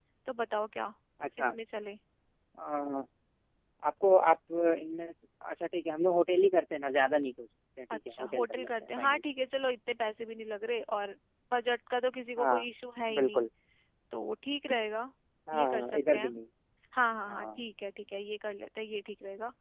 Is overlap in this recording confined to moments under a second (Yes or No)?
No